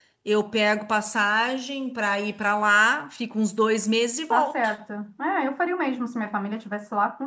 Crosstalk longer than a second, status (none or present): none